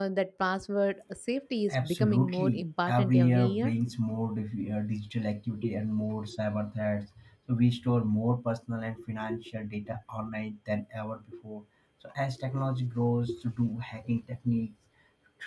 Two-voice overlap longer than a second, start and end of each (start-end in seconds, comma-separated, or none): 1.7-3.7